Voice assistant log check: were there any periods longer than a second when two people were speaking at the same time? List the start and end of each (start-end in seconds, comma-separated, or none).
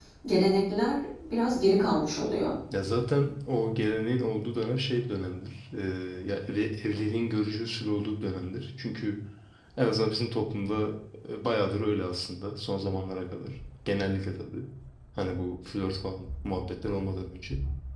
none